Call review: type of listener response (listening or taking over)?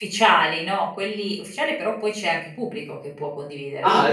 taking over